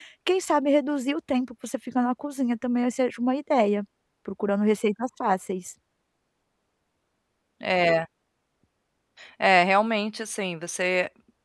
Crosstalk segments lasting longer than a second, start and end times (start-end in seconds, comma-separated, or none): none